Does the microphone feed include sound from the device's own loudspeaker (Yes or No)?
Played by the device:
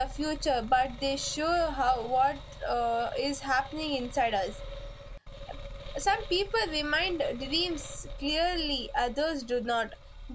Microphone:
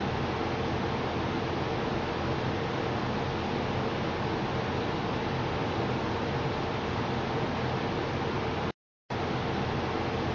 No